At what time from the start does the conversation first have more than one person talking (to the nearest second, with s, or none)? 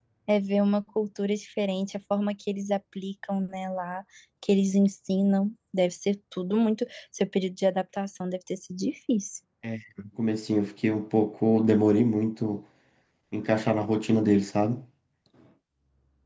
none